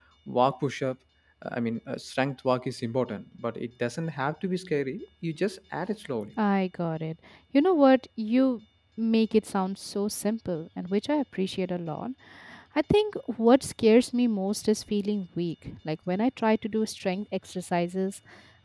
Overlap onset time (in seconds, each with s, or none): none